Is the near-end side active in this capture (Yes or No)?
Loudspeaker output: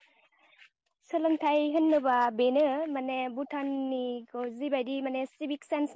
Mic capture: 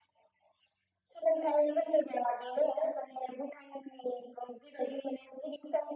No